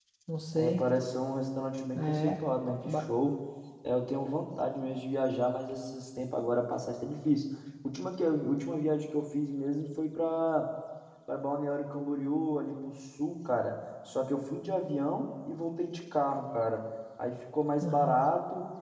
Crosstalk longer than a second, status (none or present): none